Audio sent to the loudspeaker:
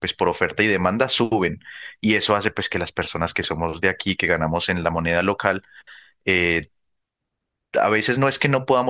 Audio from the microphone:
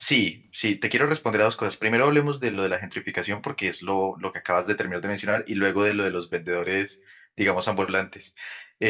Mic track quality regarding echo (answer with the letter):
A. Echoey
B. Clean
B